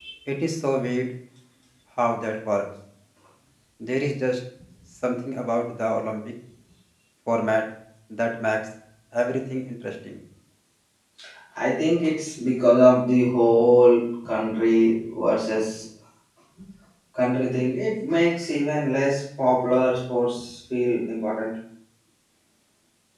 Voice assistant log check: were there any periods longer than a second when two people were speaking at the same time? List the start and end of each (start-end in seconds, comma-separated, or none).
none